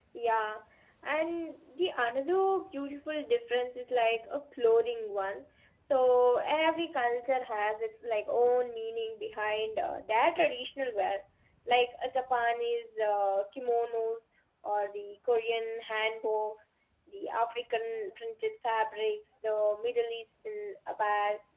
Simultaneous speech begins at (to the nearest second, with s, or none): none